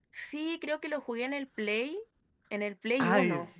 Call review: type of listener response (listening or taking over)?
taking over